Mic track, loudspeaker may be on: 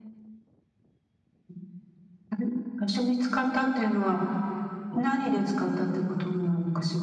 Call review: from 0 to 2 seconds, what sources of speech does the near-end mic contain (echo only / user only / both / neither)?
neither